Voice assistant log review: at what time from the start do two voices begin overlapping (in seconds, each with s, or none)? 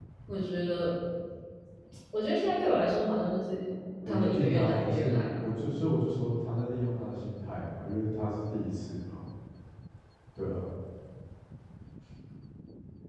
4.1 s